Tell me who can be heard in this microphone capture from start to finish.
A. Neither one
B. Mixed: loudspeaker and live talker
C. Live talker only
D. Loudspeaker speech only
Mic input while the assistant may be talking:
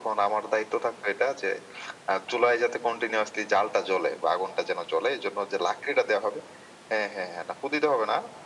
D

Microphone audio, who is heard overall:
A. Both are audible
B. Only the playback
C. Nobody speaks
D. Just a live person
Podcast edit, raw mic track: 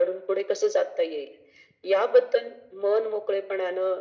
B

